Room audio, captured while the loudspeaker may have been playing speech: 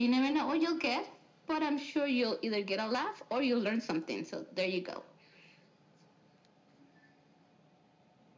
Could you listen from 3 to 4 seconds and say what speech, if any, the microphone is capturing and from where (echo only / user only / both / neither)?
echo only